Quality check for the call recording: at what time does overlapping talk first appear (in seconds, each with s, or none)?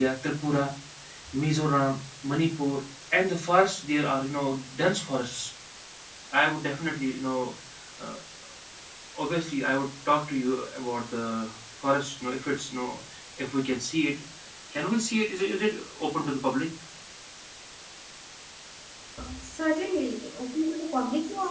none